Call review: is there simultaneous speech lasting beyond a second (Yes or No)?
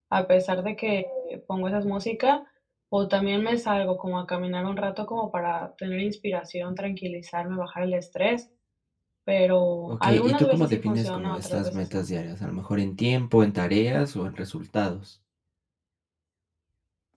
Yes